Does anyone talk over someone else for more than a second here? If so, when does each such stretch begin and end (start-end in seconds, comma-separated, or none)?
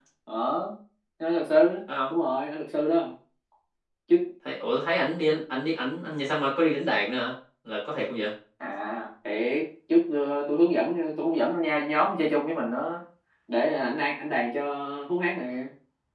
none